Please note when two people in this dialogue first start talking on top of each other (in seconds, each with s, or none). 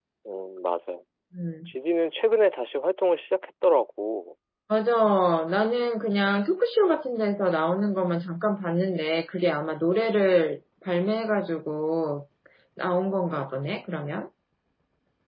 none